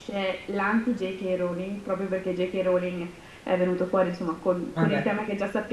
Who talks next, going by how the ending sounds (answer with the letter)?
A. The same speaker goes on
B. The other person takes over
A